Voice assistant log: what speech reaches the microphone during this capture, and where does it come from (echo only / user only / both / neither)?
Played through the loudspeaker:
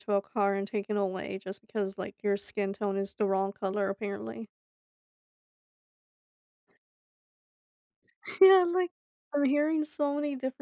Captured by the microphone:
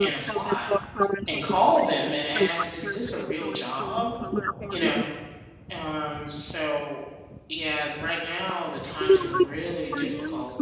both